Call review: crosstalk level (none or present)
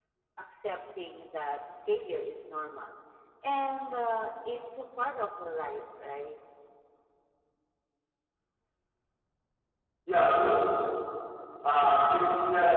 none